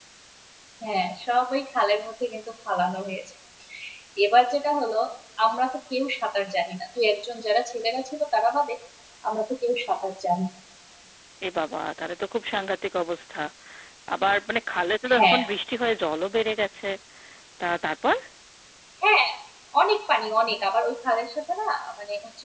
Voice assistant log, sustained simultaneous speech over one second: none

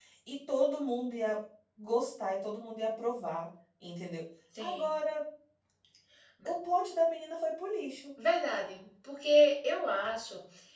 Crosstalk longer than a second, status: none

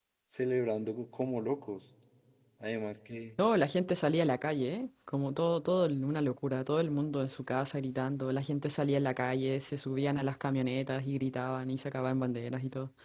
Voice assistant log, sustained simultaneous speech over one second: none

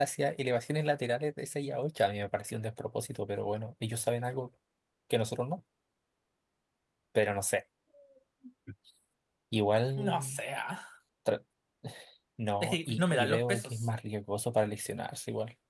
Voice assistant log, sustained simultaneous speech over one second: present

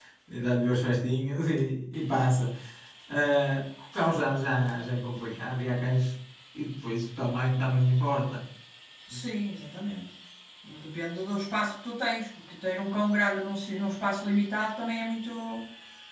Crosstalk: none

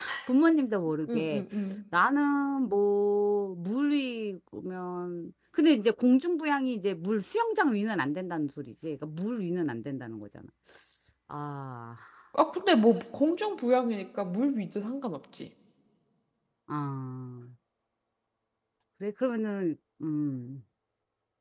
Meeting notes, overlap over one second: none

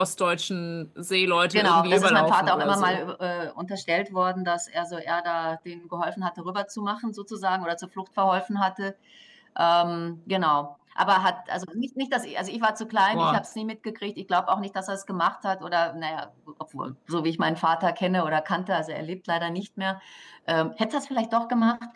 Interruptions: present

